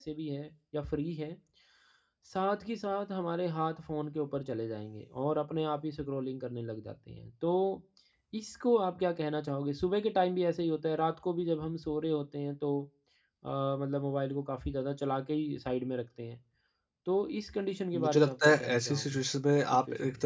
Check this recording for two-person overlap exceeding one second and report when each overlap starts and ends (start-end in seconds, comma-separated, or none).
17.9-19.2